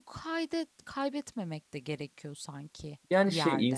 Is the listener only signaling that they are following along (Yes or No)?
No